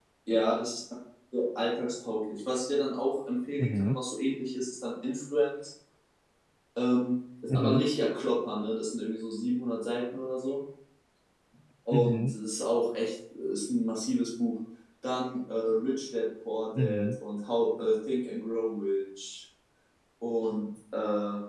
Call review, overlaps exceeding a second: none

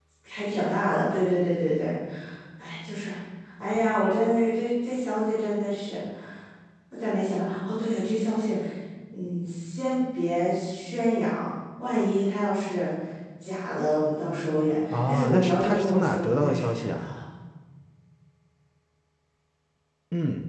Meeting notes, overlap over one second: present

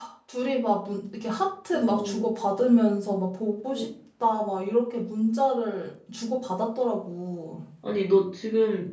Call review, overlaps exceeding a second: none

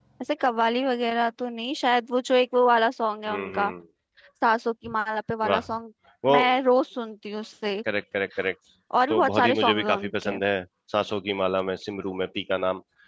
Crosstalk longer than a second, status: present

